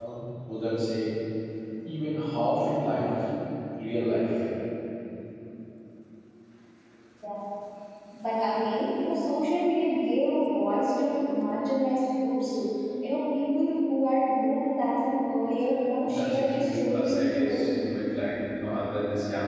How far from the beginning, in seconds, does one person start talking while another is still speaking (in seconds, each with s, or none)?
16.1 s